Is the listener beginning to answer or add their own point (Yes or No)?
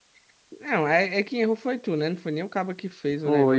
Yes